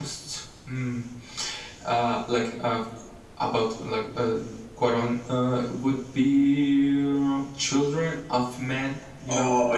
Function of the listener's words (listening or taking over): taking over